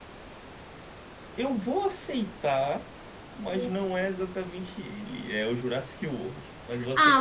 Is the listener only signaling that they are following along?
No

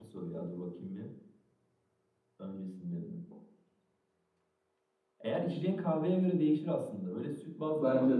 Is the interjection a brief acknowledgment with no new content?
Yes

